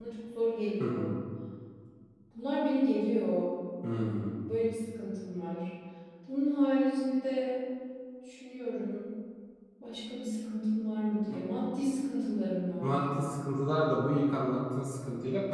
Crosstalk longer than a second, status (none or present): none